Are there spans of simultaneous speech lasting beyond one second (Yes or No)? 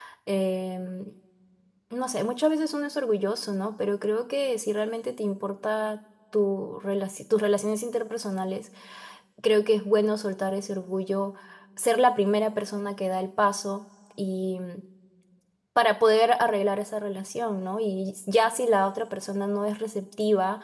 No